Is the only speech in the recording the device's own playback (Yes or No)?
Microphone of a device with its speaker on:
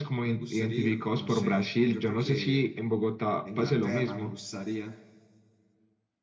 No